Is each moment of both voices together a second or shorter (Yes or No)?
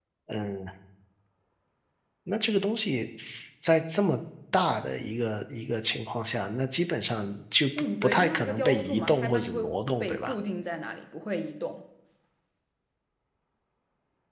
No